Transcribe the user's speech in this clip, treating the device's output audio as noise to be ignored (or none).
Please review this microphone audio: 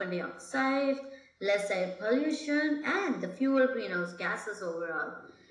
none